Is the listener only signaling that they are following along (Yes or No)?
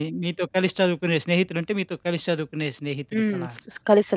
No